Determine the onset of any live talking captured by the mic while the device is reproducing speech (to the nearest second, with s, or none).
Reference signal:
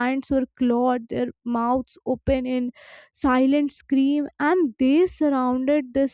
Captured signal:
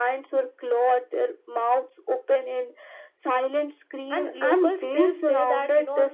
4 s